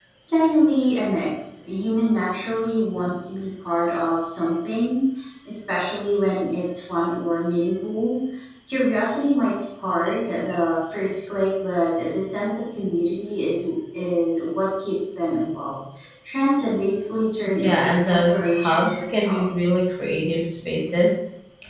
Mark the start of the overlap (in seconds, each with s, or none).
17.6 s